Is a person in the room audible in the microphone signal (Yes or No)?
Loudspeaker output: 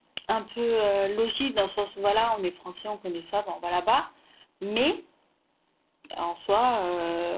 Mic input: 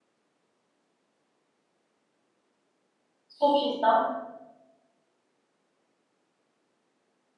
Yes